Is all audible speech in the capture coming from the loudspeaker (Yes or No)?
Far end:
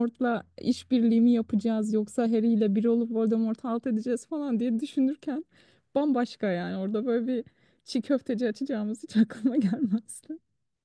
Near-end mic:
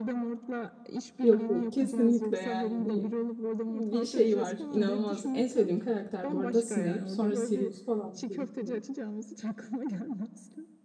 No